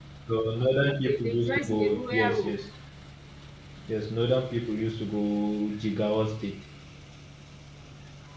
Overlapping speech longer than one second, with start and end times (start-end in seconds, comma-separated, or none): 0.8-2.5